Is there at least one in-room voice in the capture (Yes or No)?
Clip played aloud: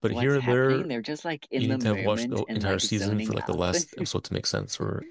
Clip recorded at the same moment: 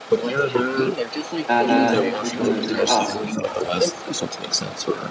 Yes